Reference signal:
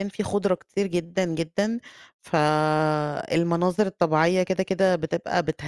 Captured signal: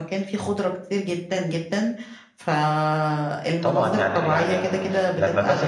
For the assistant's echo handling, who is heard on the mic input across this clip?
both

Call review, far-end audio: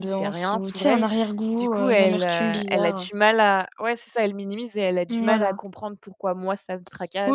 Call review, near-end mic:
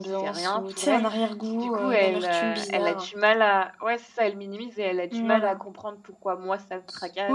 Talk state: echo only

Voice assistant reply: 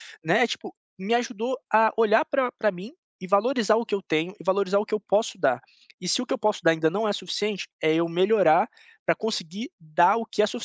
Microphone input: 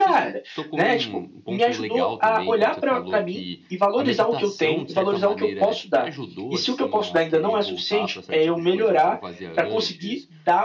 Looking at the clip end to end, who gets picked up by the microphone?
both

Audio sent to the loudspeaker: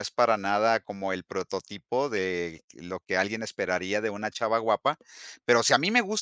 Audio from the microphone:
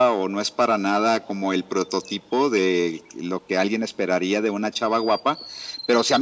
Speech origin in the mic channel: echo only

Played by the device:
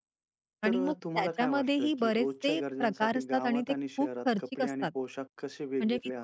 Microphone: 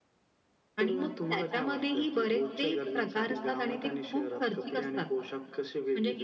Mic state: echo only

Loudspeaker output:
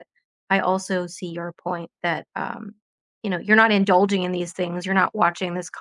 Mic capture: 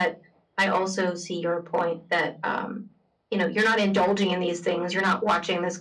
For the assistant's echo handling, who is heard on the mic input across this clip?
echo only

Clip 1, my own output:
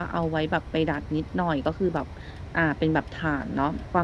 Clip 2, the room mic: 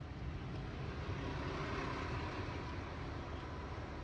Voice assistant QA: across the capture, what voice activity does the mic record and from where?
neither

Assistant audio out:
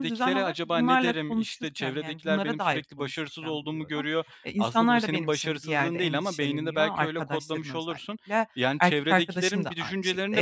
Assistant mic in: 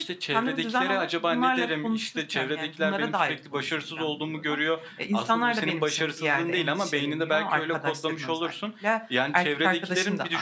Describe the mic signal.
echo only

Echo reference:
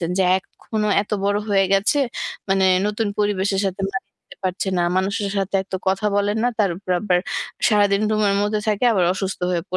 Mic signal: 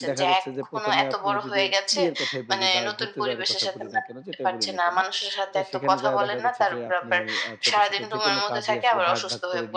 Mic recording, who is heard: both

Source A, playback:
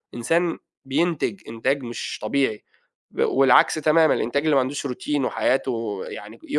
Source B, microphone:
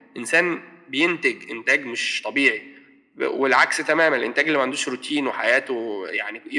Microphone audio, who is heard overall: echo only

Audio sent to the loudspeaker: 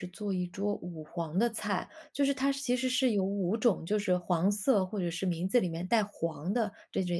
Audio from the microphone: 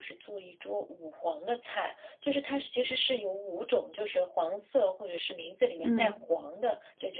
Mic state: both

